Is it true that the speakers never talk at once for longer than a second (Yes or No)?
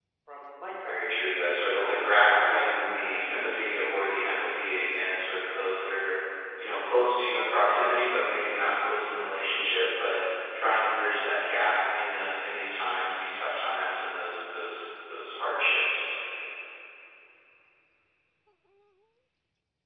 No